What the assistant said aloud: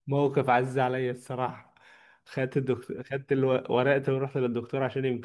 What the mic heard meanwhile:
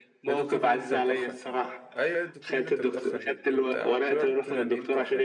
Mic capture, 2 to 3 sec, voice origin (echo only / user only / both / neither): both